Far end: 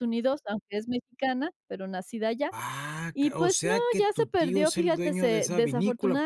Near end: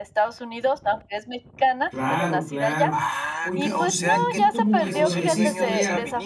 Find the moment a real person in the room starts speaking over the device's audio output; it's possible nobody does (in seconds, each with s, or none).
1.9 s